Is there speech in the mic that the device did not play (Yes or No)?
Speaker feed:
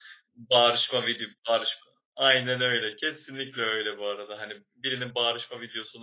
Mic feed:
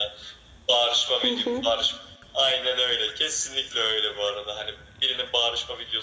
Yes